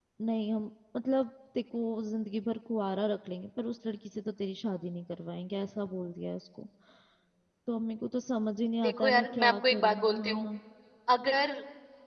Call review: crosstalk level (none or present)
present